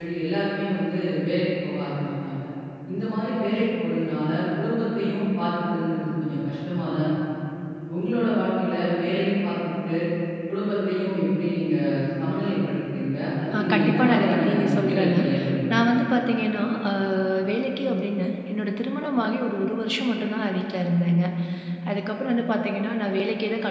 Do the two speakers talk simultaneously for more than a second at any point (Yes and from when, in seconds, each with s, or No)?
Yes, from 13.5 s